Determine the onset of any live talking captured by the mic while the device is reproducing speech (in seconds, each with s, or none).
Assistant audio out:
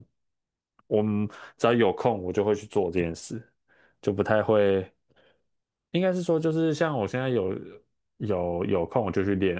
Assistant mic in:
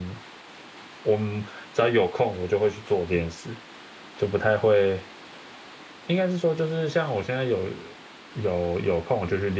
none